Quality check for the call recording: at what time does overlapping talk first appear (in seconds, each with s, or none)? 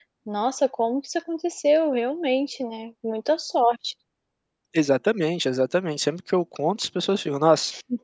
none